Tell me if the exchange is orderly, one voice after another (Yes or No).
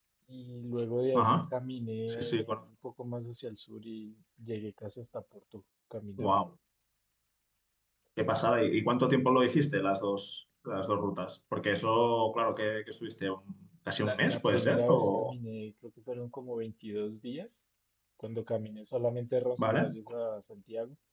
No